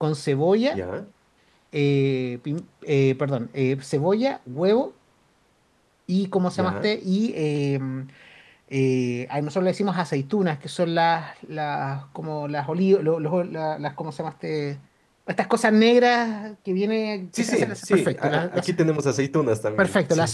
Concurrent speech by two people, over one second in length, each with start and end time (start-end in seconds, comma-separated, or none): 17.4-18.7